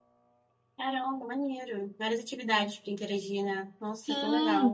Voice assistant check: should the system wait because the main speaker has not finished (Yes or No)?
No